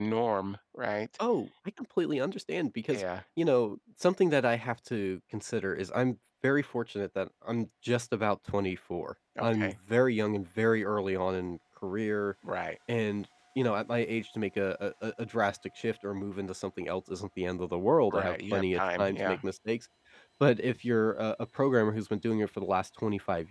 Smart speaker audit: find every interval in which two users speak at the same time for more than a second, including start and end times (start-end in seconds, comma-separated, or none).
18.1-19.4